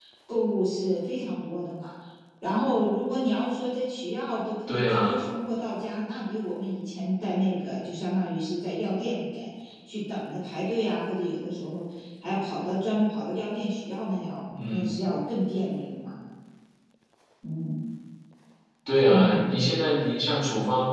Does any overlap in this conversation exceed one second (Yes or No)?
No